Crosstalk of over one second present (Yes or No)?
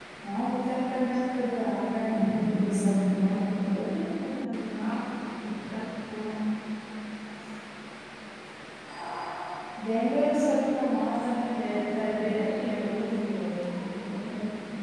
Yes